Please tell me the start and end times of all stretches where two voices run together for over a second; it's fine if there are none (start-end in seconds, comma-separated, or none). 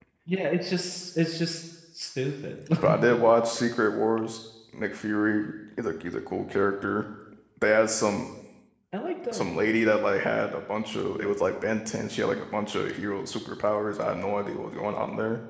none